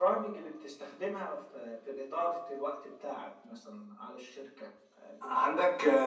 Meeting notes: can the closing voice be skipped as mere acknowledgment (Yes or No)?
No